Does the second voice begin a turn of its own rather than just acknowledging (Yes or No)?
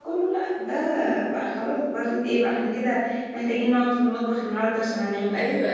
Yes